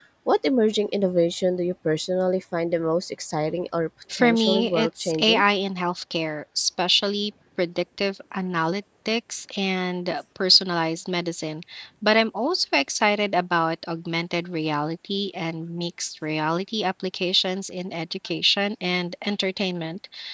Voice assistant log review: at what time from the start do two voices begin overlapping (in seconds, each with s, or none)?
4.1 s